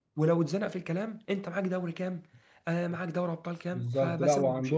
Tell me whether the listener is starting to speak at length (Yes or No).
Yes